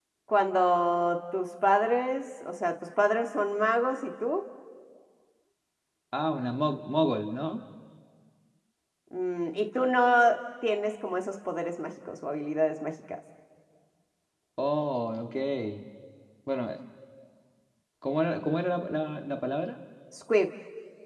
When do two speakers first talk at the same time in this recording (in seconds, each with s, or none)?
none